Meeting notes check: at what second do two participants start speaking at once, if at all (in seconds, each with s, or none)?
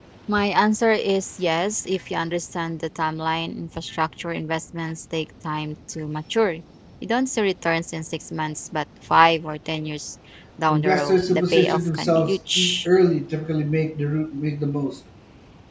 10.7 s